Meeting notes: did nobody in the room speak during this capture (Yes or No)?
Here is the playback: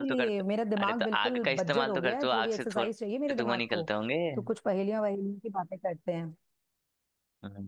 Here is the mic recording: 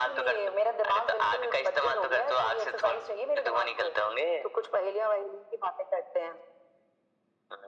Yes